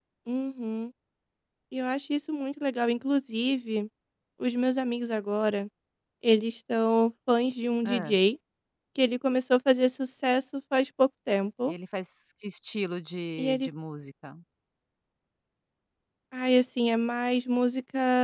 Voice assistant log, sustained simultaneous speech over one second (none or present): none